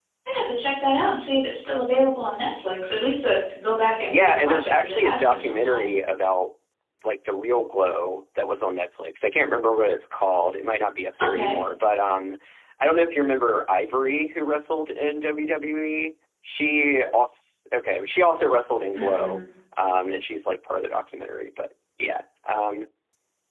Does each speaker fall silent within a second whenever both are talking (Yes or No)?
No